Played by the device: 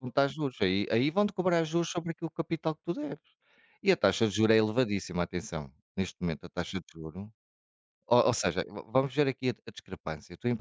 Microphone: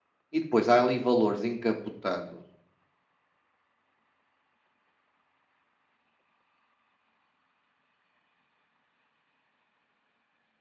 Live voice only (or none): E depois há ali valores encapotados